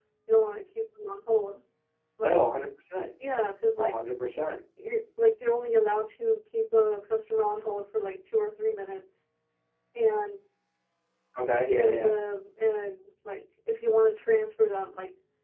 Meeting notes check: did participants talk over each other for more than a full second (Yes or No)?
No